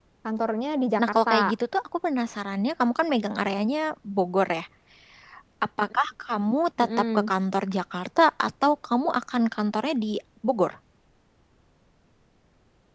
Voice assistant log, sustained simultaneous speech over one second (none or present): none